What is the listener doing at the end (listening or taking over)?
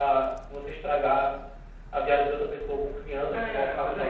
taking over